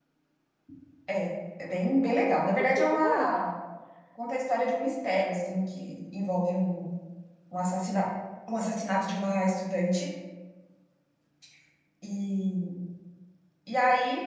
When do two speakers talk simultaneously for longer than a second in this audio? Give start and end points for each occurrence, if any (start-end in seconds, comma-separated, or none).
1.9-3.5